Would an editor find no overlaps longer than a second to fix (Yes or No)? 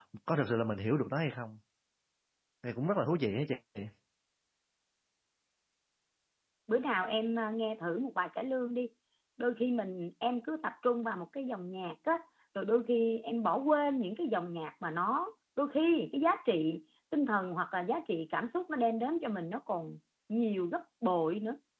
Yes